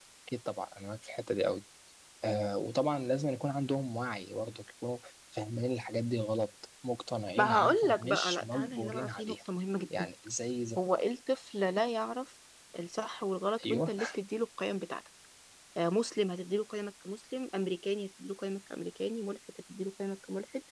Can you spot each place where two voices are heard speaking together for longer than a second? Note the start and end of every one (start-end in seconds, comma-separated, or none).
7.4-9.3